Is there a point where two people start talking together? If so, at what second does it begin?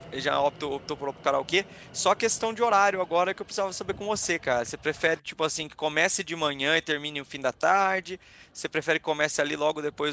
none

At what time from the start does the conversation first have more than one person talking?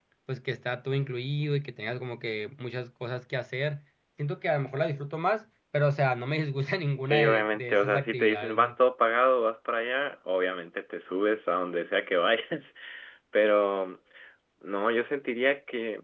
7.0 s

